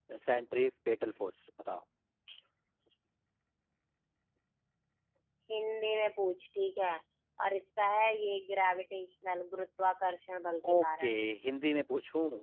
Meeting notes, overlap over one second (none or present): none